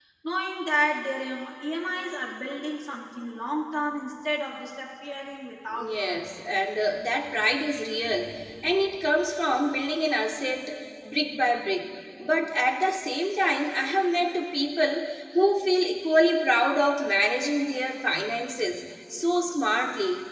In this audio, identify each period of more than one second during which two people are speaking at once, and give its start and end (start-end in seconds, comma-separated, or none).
none